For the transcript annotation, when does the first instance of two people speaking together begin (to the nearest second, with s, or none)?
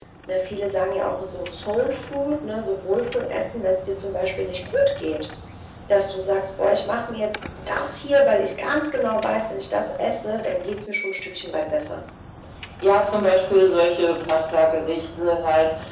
none